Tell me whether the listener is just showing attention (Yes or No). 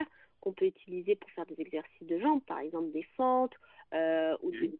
Yes